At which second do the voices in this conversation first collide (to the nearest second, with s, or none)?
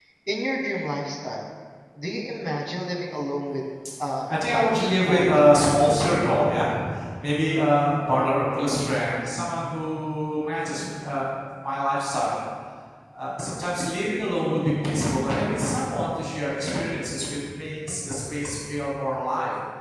4 s